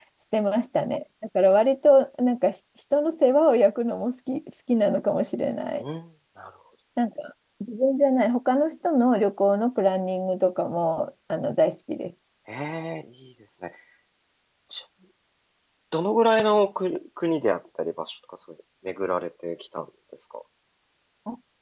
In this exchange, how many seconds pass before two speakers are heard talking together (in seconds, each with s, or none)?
none